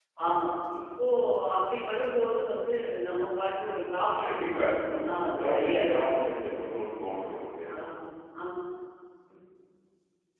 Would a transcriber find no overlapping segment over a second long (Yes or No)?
No